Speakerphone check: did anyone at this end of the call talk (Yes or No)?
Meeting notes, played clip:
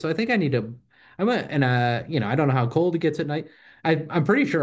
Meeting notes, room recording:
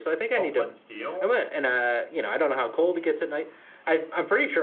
Yes